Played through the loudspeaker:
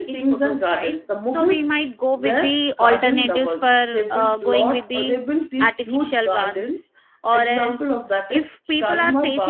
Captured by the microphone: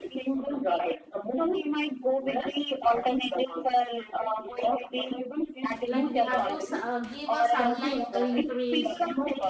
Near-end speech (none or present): present